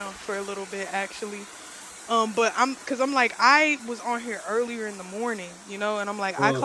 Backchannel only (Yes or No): Yes